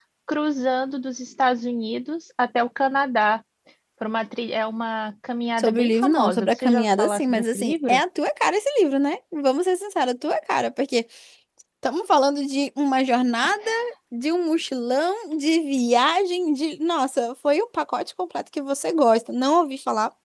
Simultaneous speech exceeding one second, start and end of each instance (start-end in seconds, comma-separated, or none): 5.6-8.0